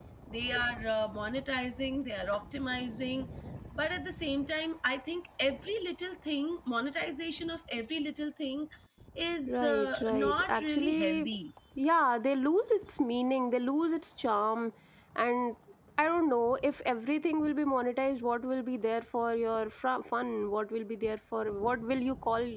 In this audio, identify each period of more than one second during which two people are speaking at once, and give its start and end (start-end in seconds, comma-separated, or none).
9.5-11.3